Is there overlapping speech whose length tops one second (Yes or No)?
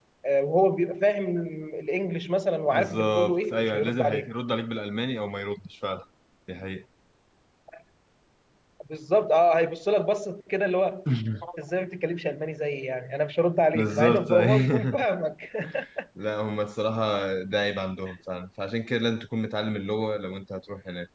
Yes